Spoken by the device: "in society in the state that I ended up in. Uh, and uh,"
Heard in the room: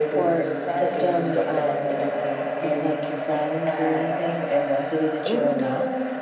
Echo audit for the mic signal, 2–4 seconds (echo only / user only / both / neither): both